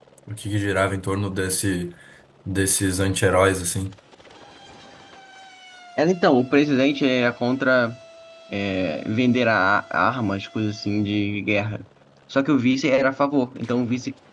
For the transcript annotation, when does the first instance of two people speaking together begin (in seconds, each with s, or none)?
none